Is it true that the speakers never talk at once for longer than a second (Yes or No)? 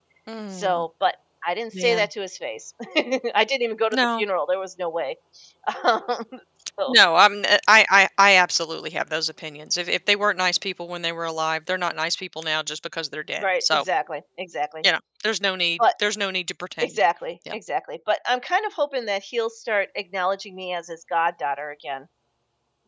Yes